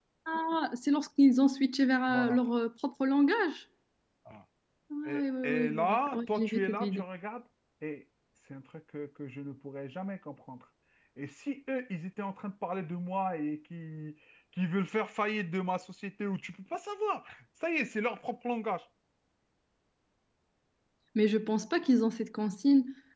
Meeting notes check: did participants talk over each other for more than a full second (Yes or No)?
Yes